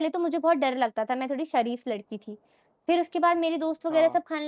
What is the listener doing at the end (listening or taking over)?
listening